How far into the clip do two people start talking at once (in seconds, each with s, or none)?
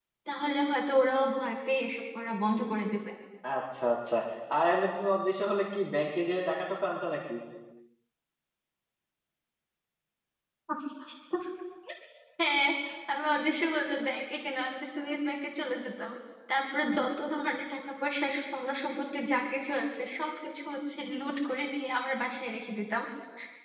none